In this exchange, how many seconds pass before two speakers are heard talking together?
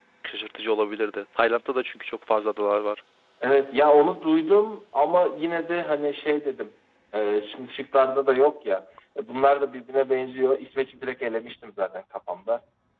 none

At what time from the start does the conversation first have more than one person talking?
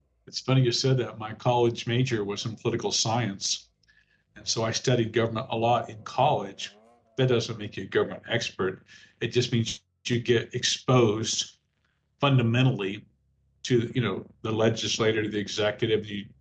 none

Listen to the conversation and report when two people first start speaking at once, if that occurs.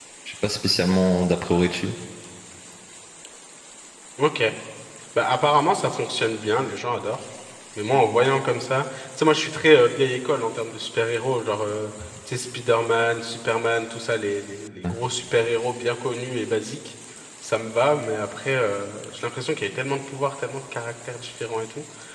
none

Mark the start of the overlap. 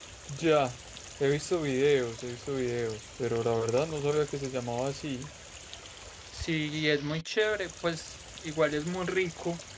none

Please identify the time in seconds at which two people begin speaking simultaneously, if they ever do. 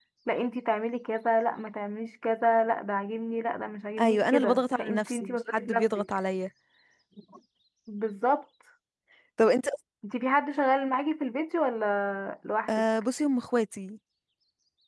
4 s

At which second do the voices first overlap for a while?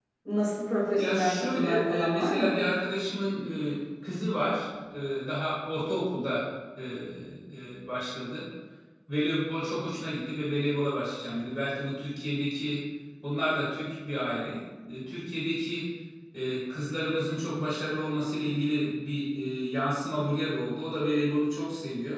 1 s

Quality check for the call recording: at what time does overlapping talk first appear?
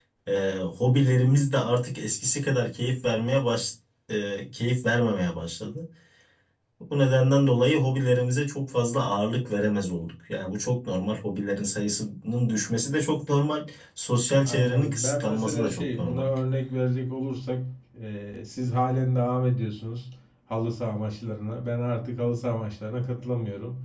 14 s

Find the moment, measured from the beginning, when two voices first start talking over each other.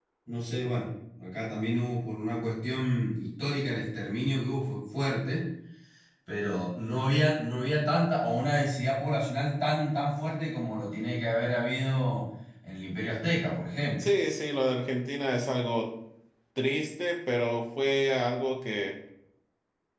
none

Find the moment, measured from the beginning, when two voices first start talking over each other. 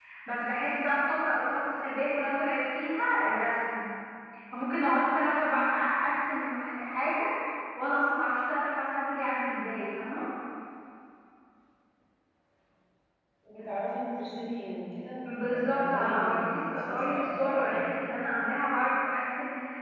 15 s

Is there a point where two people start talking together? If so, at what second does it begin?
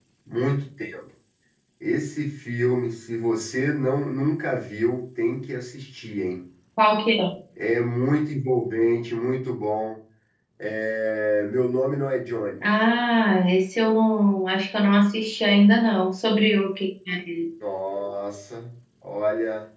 none

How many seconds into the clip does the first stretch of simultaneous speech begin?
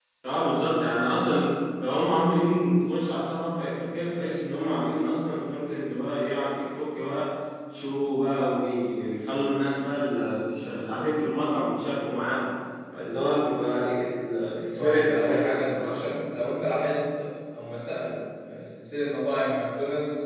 15 s

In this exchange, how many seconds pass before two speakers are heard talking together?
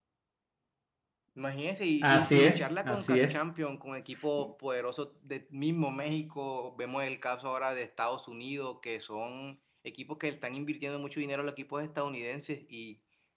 2 s

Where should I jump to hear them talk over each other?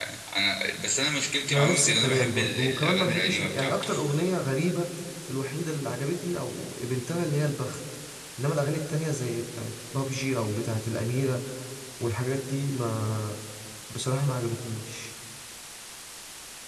1 s

